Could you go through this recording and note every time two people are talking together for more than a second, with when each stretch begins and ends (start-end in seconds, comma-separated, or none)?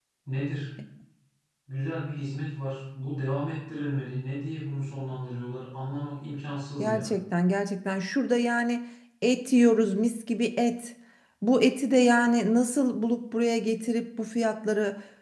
none